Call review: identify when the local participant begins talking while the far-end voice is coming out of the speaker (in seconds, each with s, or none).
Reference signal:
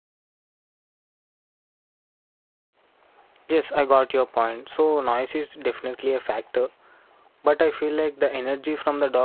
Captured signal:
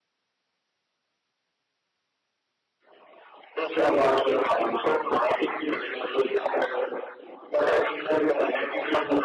none